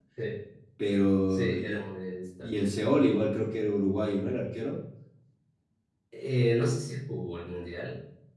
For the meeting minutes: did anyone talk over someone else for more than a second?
No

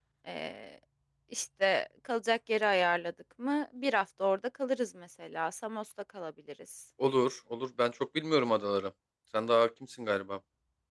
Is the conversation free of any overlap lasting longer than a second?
Yes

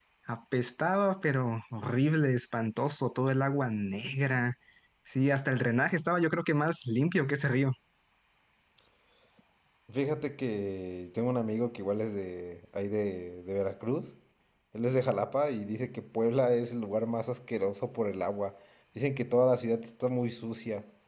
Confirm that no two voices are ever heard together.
Yes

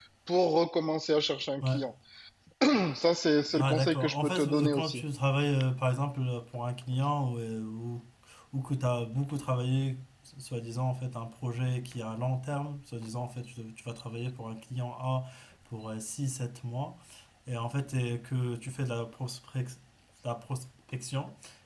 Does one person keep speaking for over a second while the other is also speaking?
Yes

